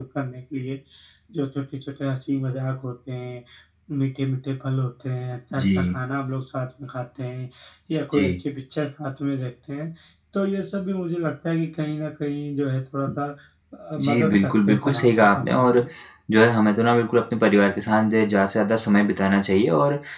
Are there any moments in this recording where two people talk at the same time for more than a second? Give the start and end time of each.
14.0-15.8

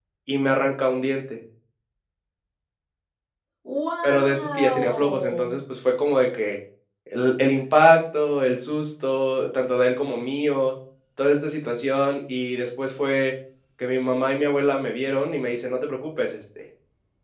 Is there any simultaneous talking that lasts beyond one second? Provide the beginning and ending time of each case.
4.0-5.5

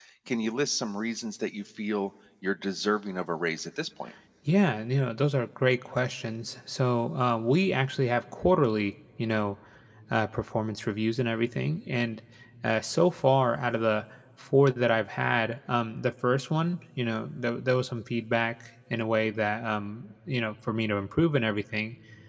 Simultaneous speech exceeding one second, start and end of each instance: none

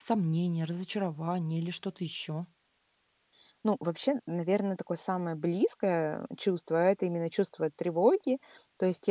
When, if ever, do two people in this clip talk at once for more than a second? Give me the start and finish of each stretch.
none

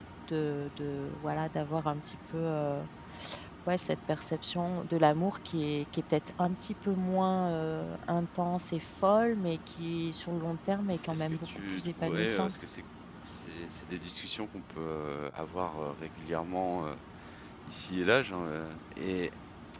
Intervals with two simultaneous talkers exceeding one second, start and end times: 11.1-12.5

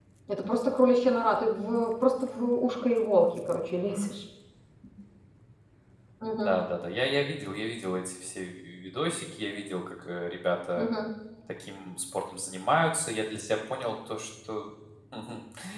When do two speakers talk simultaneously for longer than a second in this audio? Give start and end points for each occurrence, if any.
none

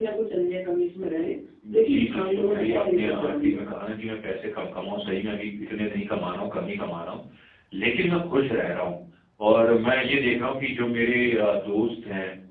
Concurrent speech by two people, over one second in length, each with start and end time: 1.7-3.6

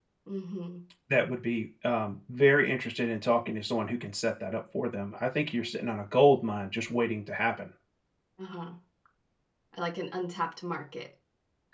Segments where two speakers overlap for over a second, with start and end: none

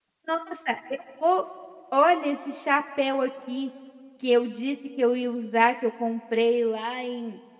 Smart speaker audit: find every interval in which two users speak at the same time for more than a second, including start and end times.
none

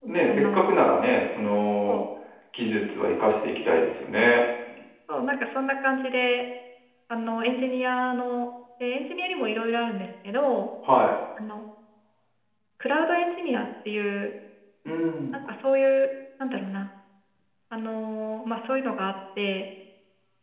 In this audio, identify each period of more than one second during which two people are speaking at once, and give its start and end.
none

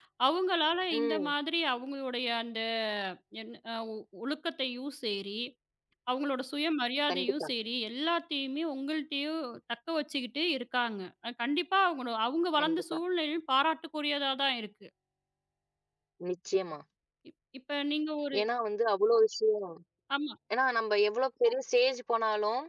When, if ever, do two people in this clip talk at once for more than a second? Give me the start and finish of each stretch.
none

